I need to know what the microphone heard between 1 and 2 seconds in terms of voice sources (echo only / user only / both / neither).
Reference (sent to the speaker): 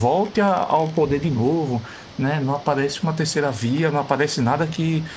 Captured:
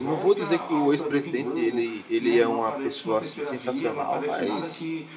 both